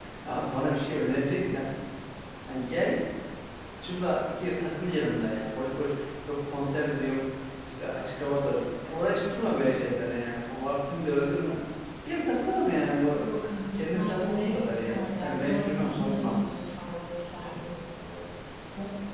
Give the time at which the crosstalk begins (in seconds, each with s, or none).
13.7 s